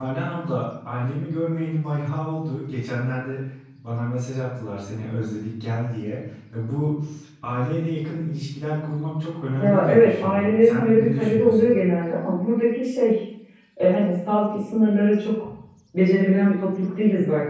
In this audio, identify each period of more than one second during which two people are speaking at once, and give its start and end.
9.6-11.7

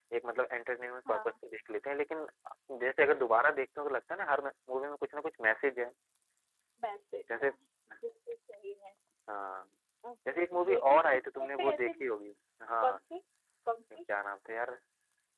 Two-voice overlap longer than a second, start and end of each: 10.3-11.9

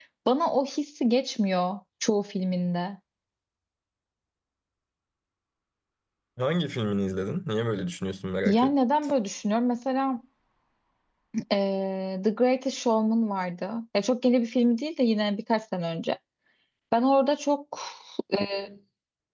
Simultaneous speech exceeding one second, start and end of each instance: none

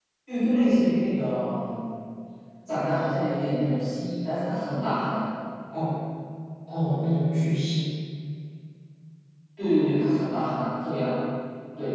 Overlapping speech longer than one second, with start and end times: none

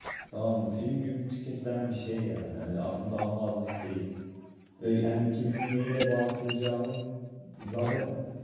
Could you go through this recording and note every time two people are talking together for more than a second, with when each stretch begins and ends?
none

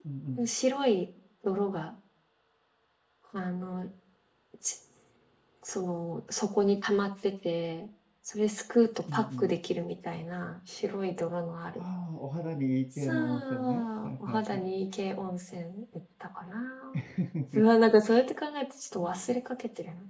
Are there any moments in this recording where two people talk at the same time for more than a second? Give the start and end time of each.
13.0-14.7

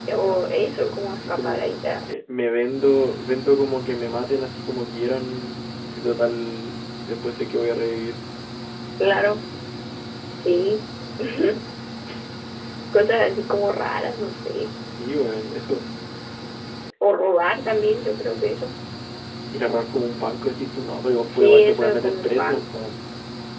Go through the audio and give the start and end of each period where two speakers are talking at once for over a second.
21.3-22.6

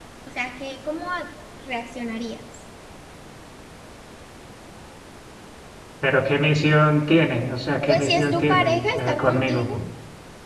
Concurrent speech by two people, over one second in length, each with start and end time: 7.9-9.7

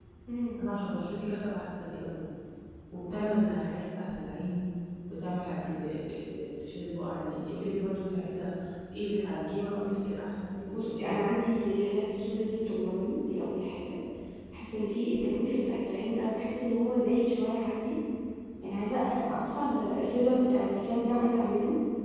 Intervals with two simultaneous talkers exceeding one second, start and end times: none

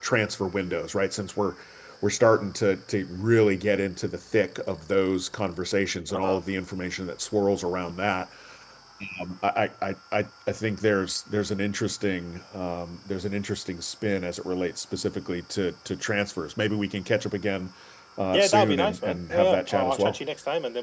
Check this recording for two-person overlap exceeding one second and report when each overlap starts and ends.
18.3-20.2

